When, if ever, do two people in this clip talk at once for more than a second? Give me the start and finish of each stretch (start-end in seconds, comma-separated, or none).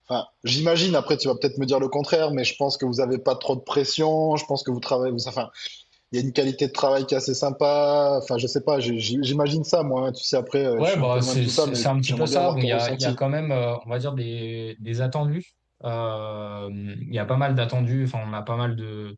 10.8-13.2